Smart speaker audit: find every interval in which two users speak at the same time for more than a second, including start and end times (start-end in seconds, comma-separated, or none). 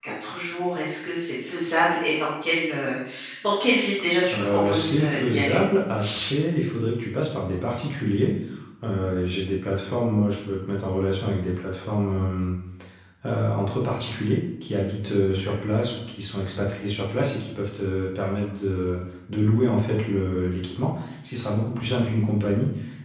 4.3-5.6